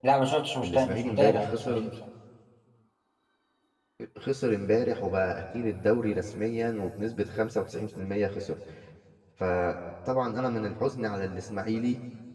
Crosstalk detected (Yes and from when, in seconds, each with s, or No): Yes, from 0.6 s